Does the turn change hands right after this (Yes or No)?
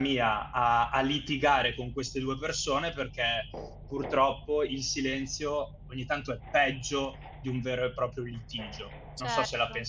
Yes